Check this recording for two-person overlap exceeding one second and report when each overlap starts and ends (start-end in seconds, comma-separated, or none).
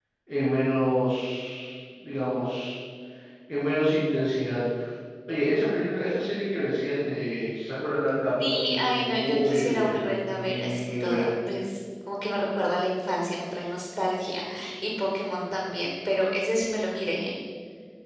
8.4-11.3